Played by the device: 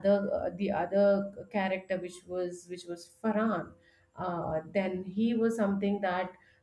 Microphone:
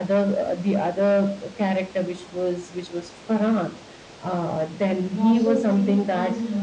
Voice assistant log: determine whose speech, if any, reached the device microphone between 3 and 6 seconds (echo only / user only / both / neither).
both